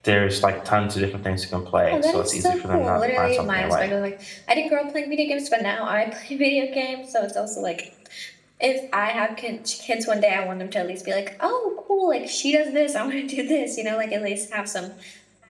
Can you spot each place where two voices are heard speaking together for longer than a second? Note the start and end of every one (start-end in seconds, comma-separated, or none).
1.9-3.9